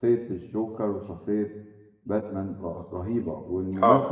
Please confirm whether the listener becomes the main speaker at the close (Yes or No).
No